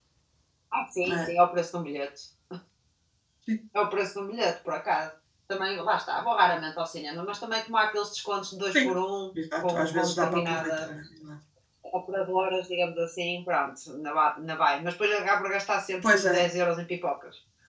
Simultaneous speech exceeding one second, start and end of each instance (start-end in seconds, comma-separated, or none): 9.6-10.9